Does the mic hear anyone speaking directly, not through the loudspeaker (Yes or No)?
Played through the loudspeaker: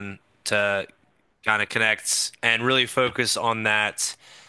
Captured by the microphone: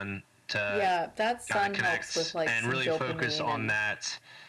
Yes